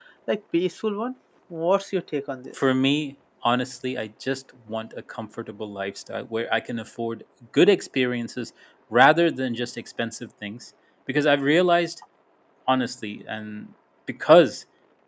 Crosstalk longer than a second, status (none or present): none